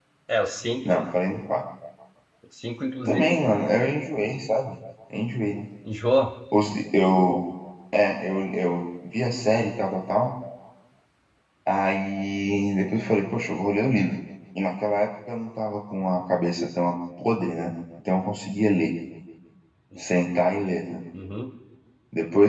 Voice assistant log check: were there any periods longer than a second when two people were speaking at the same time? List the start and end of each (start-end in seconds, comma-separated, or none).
none